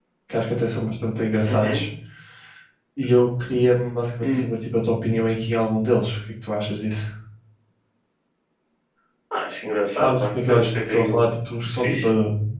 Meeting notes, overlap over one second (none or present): present